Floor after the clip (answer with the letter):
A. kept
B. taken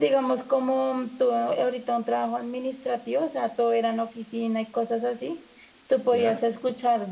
A